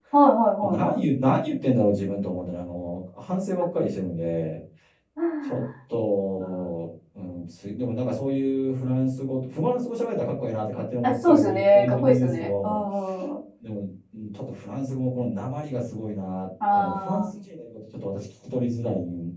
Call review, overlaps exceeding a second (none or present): present